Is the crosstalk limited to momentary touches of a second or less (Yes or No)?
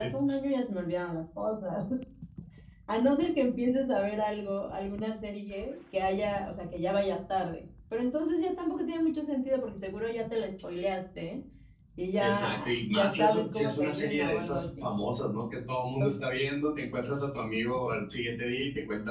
No